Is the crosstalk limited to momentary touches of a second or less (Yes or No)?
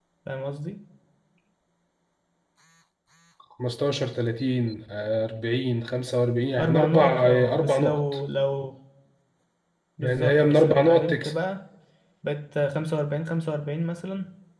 No